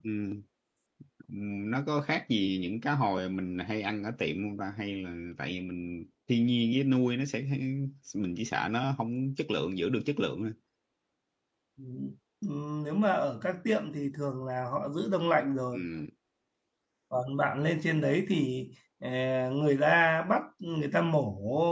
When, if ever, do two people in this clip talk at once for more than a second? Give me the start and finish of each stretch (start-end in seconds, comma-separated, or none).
none